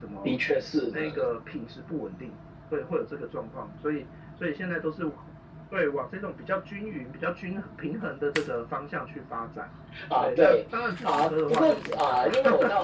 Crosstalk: present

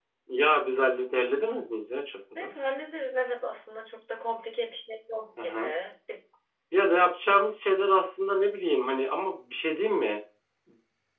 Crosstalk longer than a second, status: none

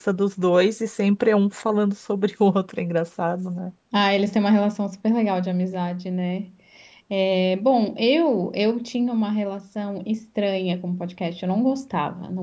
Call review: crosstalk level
none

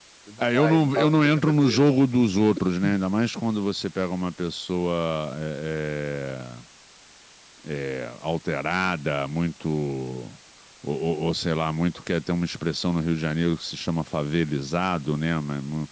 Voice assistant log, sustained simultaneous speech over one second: present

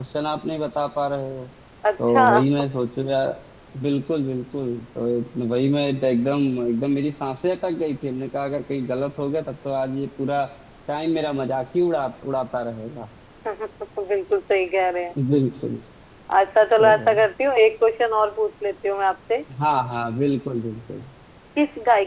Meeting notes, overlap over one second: none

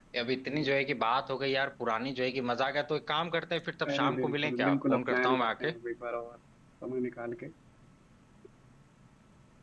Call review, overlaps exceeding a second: present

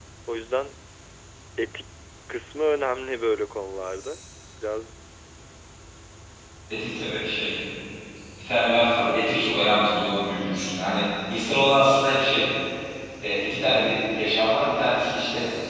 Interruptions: none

